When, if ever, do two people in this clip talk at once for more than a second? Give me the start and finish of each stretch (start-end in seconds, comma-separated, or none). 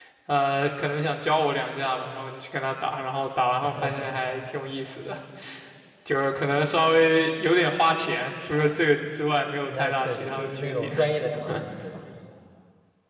9.6-11.0